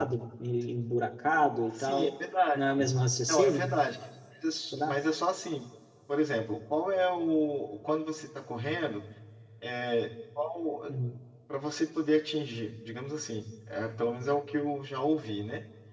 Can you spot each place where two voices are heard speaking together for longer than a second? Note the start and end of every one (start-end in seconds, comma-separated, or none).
none